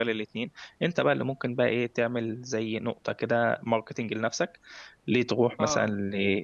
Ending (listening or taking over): listening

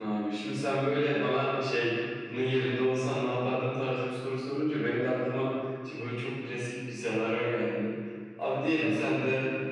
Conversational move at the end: listening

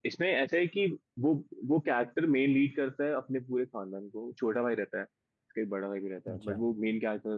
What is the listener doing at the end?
listening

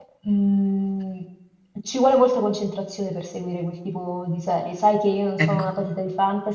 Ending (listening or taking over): listening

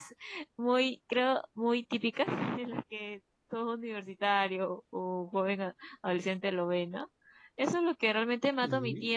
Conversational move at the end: listening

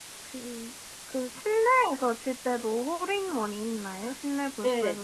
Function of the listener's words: taking over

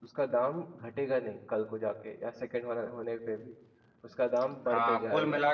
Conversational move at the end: taking over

